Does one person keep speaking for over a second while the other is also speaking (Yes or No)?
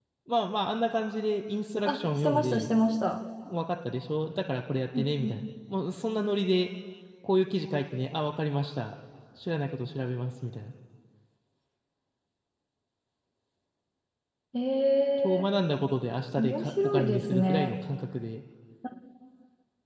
Yes